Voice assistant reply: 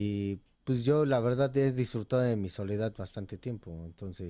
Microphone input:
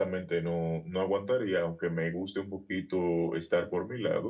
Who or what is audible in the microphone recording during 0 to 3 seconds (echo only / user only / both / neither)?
user only